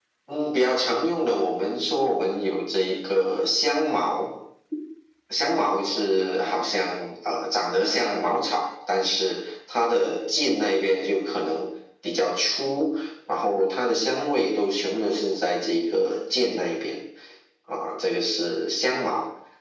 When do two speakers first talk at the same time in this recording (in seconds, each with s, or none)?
none